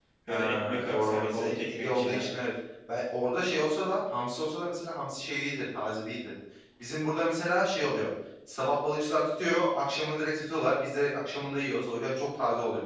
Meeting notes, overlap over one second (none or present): present